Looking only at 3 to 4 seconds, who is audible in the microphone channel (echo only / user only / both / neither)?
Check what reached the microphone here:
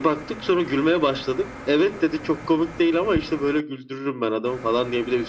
echo only